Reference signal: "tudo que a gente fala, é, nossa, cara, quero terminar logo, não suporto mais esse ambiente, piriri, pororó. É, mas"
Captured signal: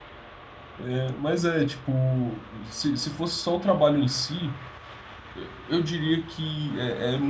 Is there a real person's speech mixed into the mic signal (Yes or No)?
Yes